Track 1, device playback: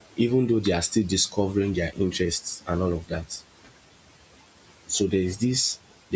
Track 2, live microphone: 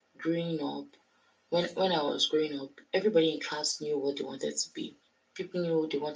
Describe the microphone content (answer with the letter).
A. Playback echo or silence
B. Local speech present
B